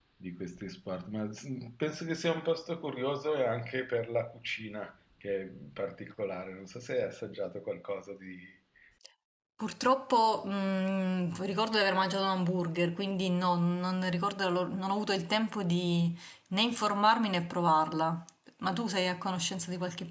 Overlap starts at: none

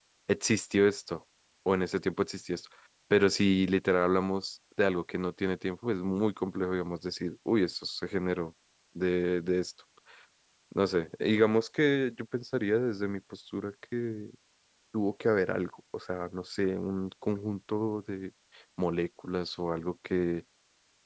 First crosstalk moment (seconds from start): none

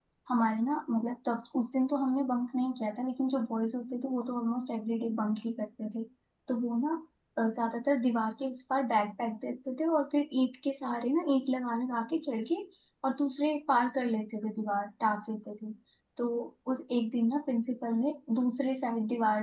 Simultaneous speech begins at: none

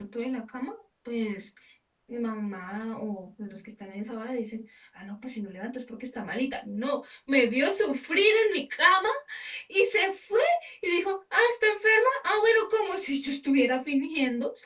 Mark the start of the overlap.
none

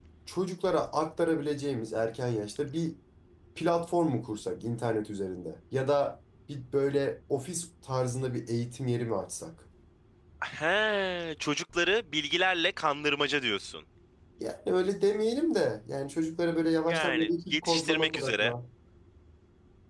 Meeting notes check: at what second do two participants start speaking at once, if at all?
17 s

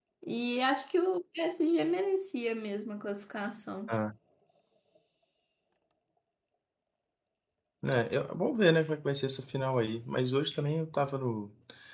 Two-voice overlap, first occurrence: none

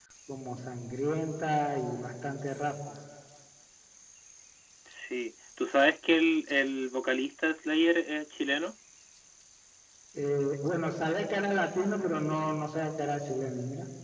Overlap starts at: none

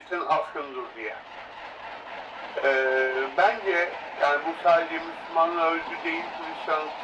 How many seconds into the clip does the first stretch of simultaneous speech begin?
none

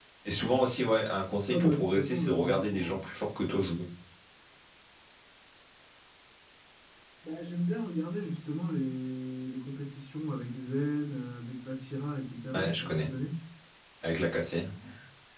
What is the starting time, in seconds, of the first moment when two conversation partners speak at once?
1 s

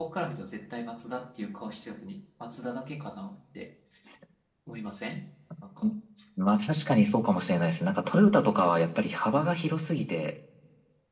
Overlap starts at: none

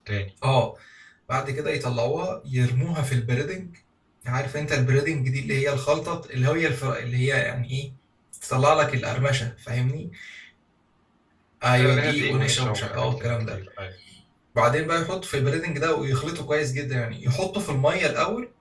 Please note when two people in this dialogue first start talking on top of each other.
12 s

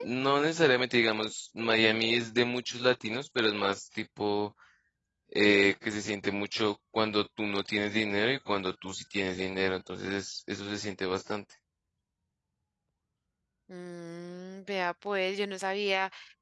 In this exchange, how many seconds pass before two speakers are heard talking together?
none

